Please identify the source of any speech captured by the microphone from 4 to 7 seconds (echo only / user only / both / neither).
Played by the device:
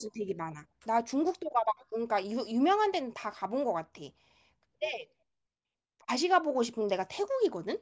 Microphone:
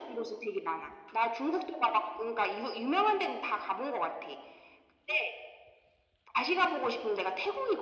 echo only